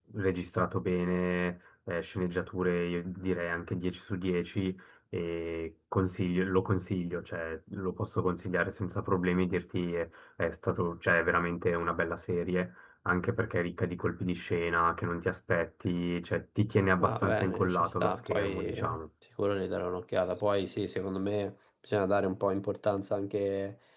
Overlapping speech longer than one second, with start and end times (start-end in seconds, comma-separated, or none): 17.0-19.0